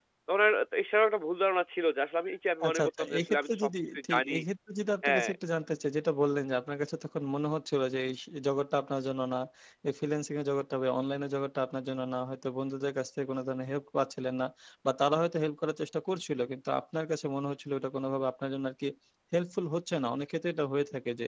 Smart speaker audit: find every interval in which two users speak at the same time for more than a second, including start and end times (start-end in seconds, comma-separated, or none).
2.6-4.3